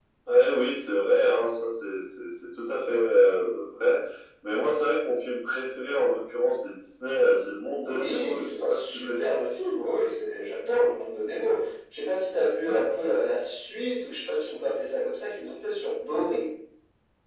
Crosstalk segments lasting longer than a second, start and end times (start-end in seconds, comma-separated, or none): 7.8-9.2